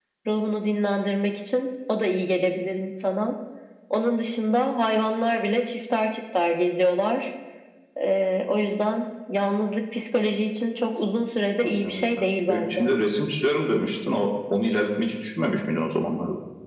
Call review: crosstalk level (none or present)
present